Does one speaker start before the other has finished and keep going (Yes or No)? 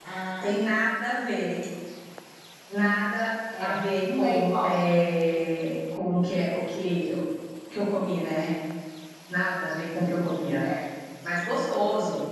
Yes